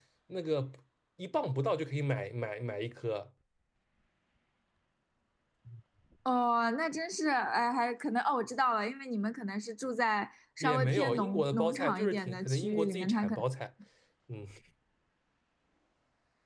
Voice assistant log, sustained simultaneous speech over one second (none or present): present